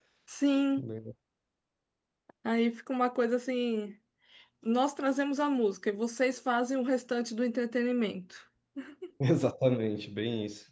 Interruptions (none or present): none